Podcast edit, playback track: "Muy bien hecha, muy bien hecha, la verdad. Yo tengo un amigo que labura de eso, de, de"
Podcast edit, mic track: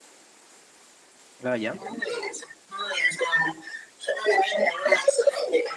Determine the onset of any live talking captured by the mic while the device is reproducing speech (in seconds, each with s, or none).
1.4 s